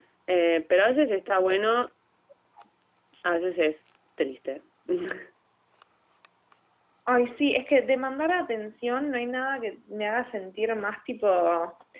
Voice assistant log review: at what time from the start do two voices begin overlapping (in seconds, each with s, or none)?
none